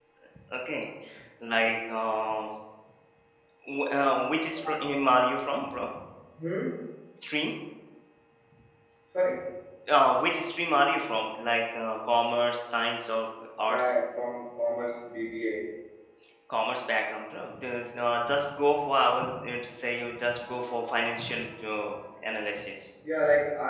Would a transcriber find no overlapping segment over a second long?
Yes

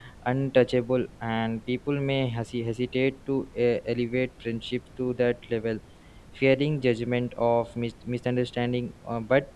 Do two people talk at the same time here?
No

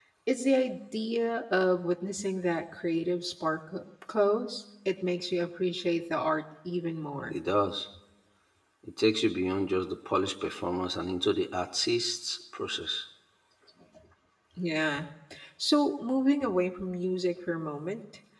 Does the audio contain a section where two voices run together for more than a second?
No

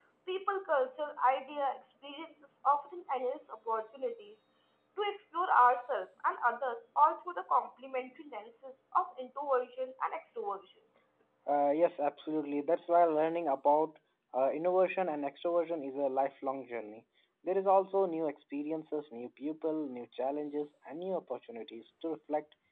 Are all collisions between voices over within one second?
Yes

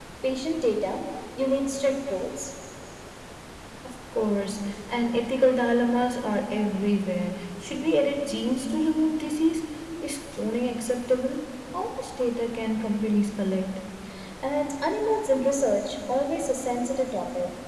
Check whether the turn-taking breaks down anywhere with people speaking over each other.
No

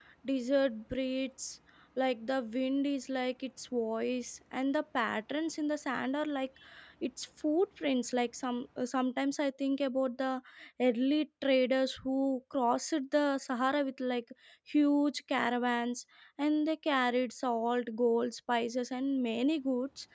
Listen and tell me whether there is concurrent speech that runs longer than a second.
No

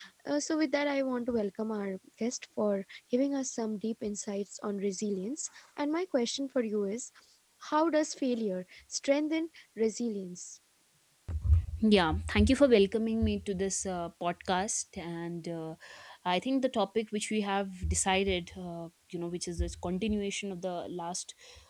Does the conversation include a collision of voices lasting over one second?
No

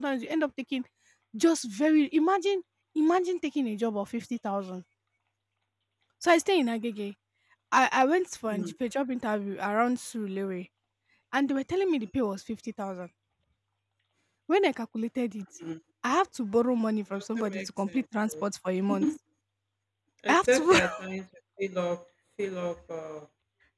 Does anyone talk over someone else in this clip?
Yes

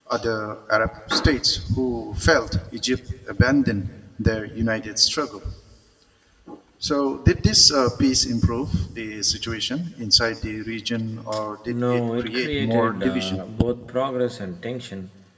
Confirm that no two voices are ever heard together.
No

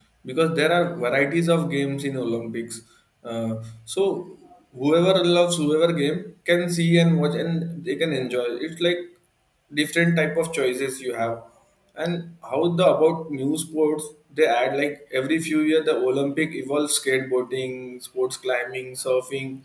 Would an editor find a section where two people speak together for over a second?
No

